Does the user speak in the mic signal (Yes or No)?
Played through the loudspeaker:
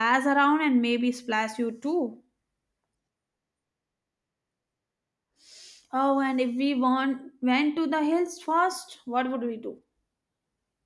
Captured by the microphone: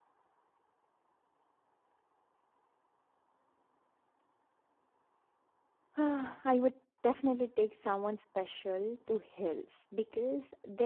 Yes